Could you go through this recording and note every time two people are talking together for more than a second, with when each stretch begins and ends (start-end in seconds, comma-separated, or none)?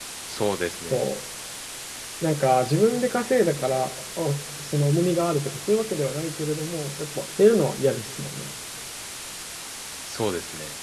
none